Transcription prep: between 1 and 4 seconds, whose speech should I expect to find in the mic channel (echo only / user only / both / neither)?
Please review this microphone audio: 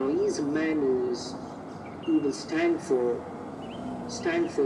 echo only